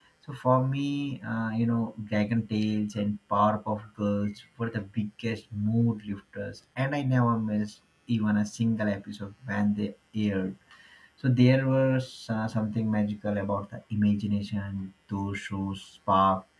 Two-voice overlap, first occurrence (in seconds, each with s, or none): none